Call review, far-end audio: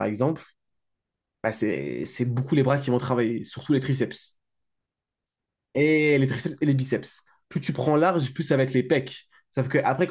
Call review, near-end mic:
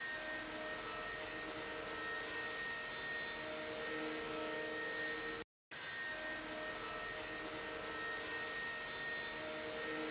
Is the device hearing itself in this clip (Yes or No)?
No